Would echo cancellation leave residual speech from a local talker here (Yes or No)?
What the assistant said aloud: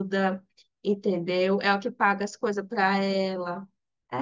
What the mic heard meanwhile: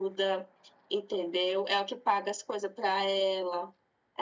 No